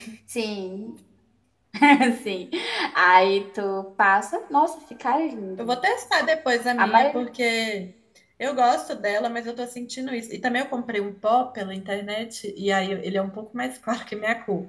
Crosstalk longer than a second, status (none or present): none